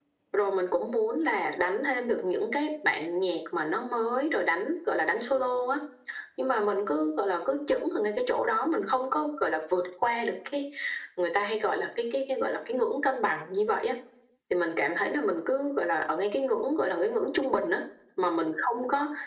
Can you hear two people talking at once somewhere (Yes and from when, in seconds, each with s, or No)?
No